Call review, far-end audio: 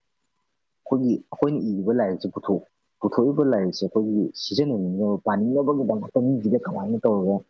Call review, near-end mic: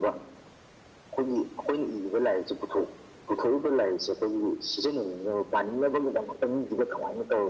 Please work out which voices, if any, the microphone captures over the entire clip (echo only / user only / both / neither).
echo only